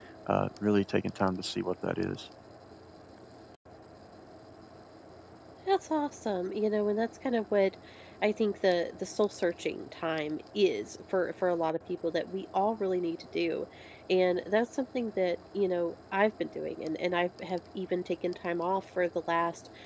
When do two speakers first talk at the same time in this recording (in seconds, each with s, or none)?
none